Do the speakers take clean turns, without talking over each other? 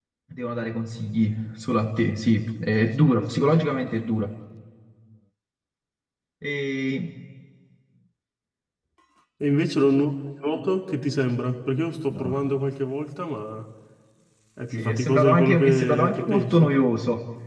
No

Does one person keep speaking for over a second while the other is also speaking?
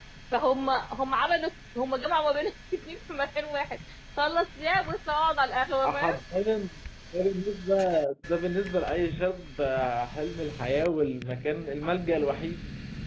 No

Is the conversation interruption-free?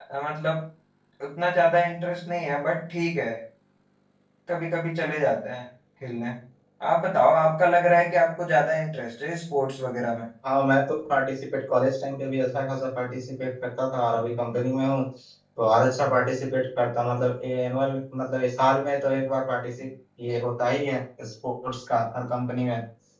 Yes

